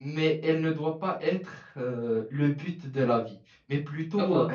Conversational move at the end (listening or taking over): listening